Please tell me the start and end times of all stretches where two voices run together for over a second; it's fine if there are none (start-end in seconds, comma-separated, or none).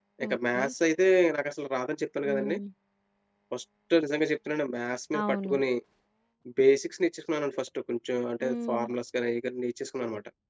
none